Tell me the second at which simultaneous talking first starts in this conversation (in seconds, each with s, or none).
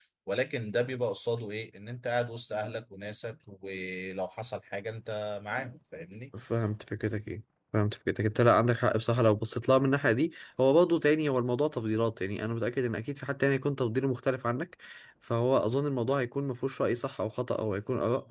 none